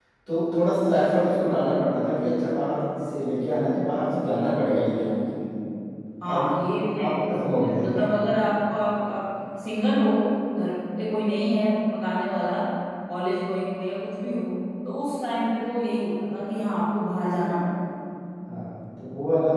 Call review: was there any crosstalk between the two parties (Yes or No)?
Yes